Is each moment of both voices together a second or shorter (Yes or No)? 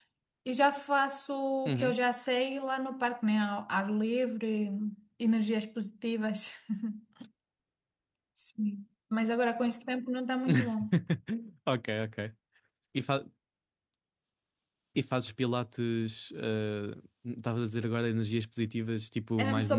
Yes